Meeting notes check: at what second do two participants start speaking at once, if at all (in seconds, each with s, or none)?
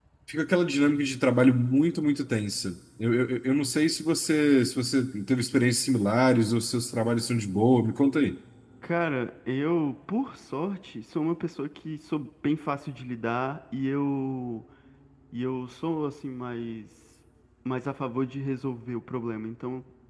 none